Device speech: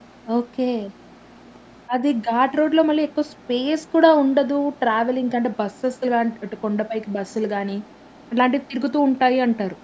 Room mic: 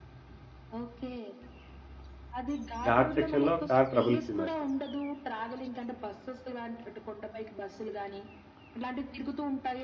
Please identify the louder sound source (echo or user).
user